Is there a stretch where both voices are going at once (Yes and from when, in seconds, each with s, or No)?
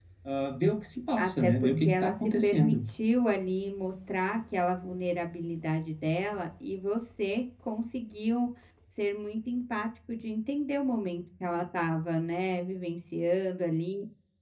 Yes, from 1.2 s